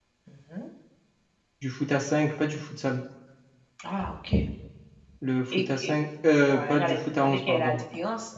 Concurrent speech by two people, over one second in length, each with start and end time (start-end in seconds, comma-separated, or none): 6.5-7.8